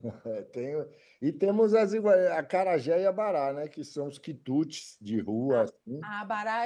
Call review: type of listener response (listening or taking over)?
taking over